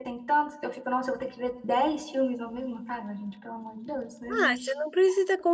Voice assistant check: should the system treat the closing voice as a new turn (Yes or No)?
Yes